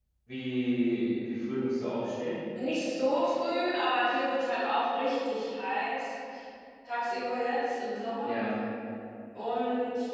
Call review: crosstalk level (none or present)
none